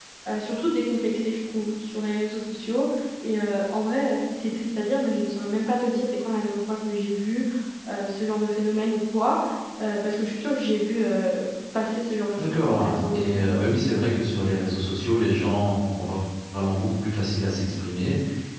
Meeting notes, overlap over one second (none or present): present